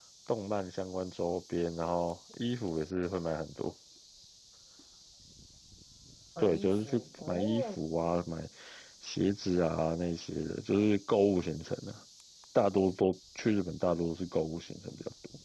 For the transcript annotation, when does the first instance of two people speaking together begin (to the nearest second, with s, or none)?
6 s